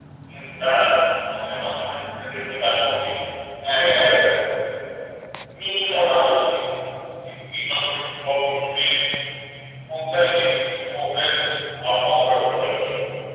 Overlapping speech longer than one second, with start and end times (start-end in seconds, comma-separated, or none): none